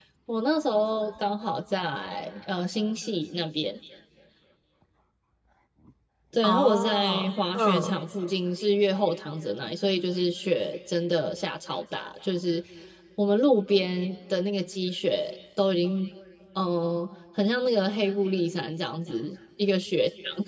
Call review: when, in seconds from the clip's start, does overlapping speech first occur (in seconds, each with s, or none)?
6.4 s